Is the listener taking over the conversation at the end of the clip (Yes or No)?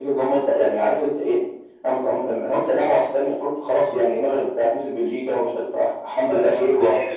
Yes